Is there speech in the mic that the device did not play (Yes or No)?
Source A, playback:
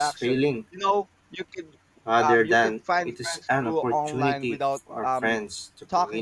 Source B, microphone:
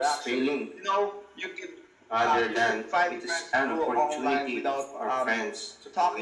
No